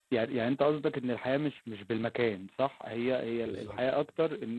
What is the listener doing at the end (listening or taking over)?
listening